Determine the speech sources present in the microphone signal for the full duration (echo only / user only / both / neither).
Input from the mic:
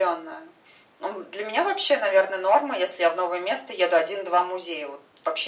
echo only